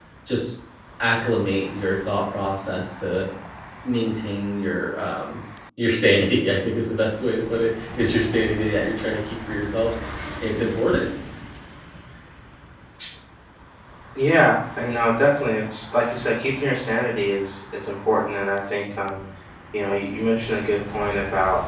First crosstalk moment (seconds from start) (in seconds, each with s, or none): none